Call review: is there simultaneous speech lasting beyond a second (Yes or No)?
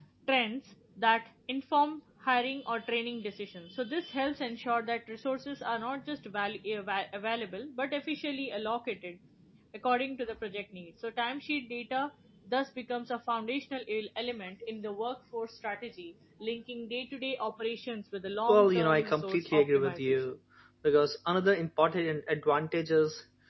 Yes